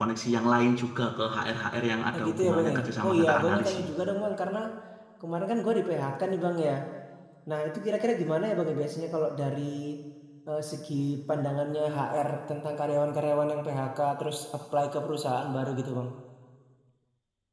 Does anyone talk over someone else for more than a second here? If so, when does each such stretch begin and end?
2.1-3.9

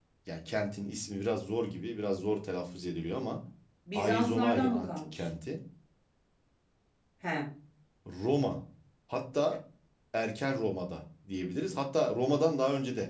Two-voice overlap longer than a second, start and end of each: 3.9-5.3

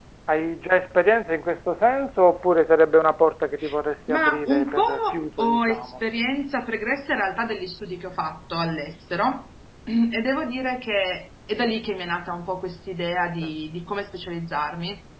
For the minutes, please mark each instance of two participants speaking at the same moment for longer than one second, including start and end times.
4.1-5.9

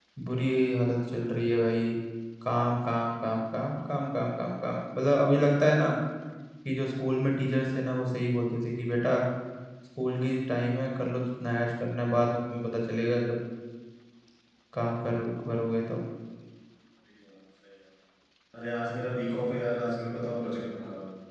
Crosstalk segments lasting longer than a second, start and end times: none

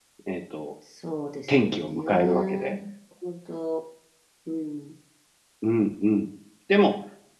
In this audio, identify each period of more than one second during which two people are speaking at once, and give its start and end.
1.5-2.7

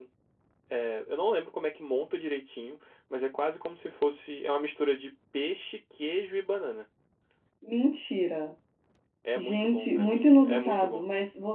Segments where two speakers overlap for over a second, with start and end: 9.4-11.0

